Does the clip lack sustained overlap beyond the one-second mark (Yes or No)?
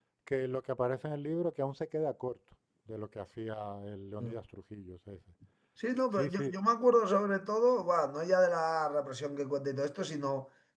Yes